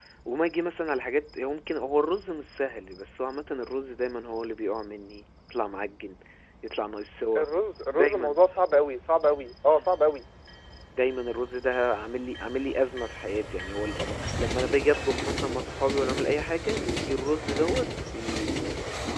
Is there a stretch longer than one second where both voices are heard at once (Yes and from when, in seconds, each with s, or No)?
No